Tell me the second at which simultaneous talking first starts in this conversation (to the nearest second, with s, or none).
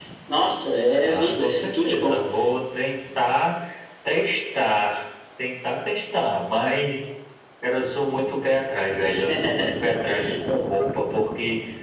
1 s